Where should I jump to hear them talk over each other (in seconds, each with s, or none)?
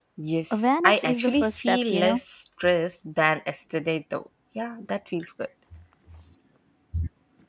0.5 s